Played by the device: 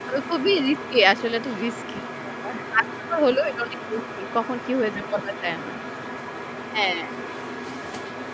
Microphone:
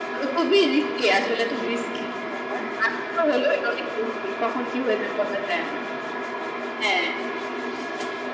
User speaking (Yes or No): No